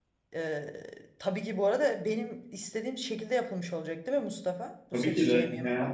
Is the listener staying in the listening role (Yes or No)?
No